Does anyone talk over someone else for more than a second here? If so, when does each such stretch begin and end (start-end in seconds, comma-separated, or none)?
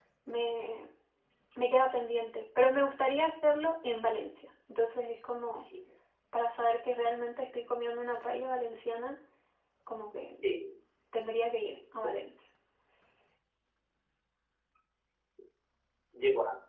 none